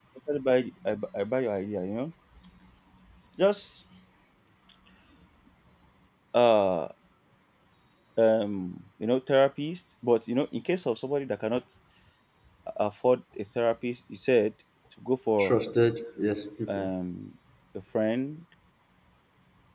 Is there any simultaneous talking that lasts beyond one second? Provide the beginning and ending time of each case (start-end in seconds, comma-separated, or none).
none